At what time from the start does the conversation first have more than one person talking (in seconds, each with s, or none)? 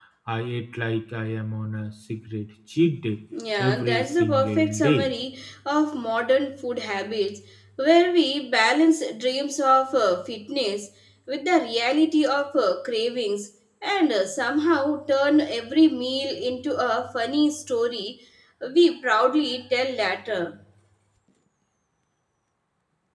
3.6 s